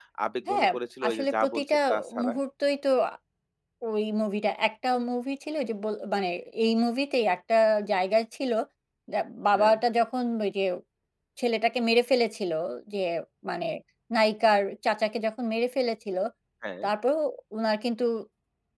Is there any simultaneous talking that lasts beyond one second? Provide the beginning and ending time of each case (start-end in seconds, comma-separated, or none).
1.1-2.3